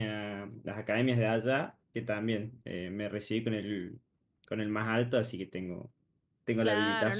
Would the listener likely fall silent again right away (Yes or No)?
No